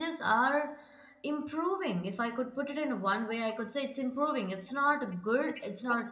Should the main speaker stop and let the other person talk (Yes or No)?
No